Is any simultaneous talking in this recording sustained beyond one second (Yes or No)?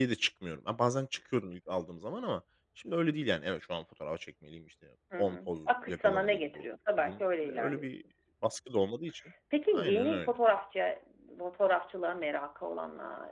Yes